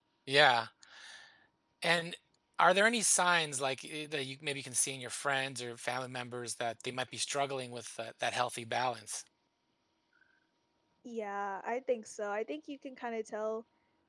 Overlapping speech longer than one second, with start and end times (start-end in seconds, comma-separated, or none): none